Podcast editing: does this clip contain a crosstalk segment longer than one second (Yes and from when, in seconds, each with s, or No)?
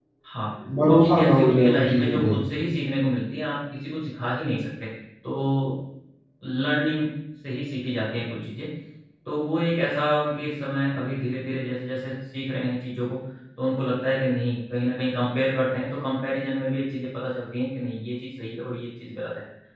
Yes, from 0.9 s